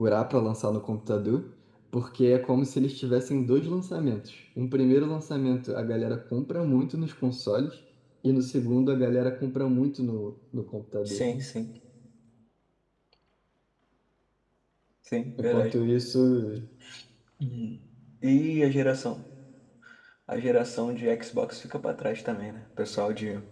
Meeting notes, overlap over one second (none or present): none